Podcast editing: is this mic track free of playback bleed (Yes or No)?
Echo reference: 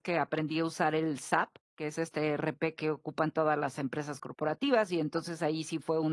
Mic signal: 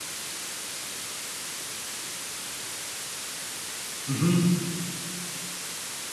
Yes